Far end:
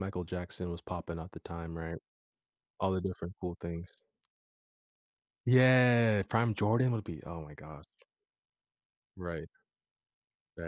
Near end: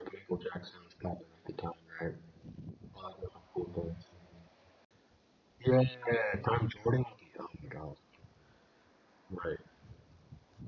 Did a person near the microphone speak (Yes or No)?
No